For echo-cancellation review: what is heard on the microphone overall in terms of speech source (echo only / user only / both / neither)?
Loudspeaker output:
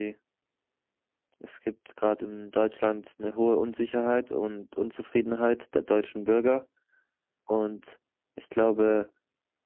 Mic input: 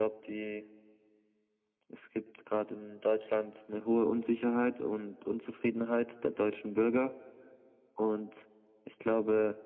echo only